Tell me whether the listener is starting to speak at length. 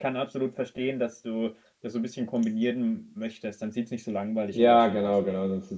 Yes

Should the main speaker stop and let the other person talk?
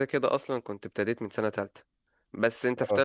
No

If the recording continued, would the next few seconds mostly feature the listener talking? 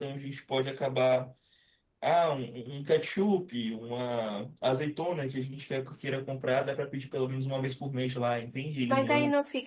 Yes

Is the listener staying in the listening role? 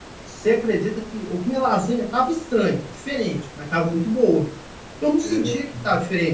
Yes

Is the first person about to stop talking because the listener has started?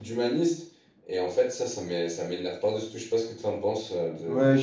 Yes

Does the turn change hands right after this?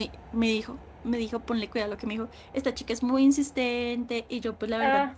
No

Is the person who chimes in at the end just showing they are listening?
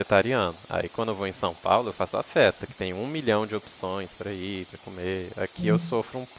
Yes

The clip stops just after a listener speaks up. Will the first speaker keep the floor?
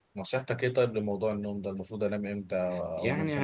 No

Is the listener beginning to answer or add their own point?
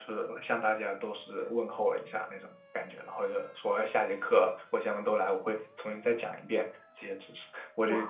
Yes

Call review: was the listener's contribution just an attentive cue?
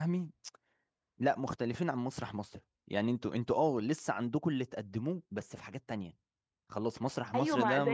No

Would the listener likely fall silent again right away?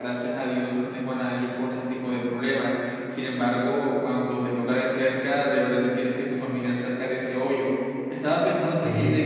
Yes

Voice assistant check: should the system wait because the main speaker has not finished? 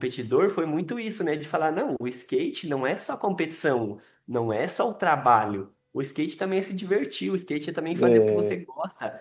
Yes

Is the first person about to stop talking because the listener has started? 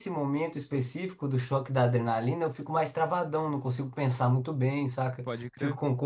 No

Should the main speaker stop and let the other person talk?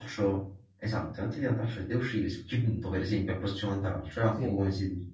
No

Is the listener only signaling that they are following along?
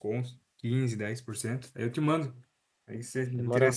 No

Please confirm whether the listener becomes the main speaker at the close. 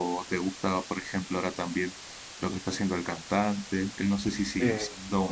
No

